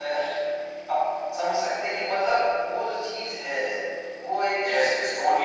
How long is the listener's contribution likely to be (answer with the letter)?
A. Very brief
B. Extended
B